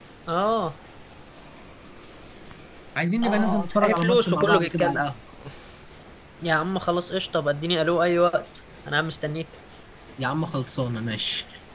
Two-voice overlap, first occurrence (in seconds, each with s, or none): 3.2 s